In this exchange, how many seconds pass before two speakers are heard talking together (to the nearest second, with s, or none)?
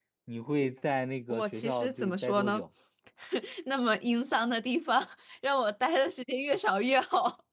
1 s